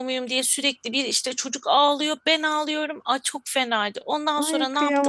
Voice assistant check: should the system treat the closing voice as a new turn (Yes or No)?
Yes